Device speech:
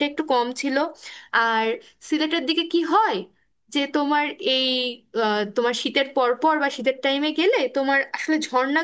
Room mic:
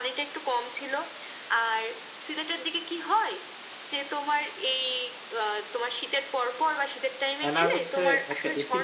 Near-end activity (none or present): present